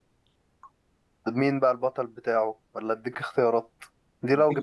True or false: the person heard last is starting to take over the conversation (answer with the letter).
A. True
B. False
B